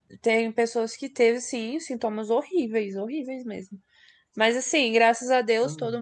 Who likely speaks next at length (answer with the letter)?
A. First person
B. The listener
A